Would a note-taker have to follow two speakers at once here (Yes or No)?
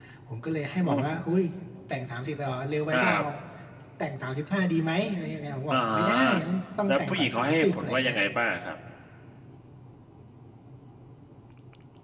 Yes